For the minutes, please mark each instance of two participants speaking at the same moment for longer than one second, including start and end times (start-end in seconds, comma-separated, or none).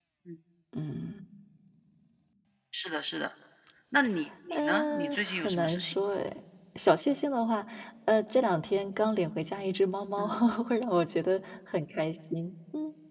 4.5-5.9